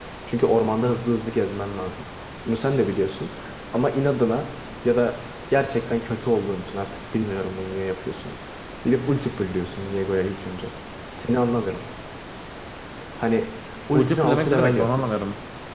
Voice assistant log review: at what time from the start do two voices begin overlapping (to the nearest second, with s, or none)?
14 s